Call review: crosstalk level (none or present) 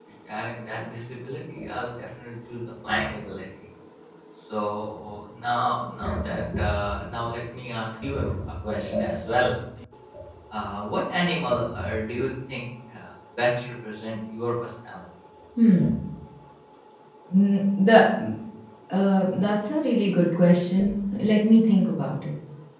none